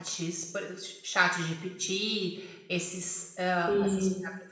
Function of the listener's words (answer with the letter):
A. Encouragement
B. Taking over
A